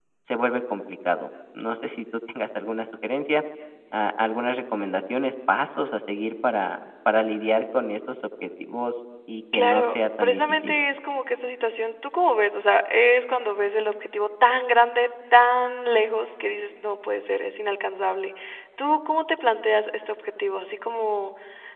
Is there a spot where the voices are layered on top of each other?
Yes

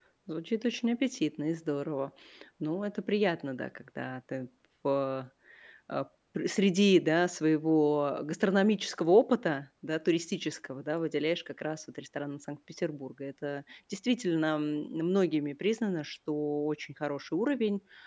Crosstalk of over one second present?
No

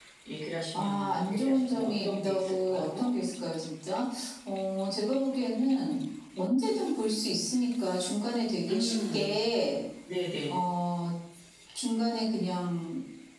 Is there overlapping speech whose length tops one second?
Yes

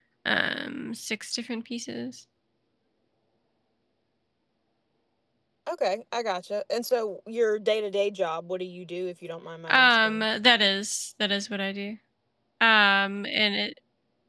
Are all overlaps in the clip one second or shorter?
Yes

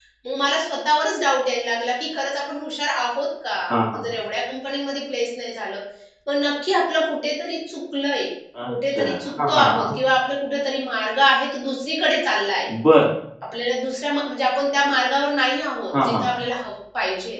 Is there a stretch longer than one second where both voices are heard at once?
No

